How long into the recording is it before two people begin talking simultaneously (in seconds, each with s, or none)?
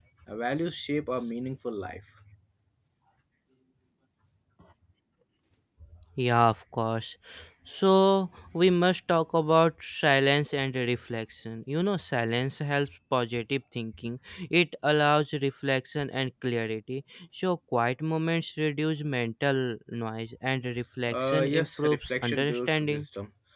21.1 s